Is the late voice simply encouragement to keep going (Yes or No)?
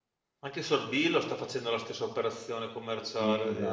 No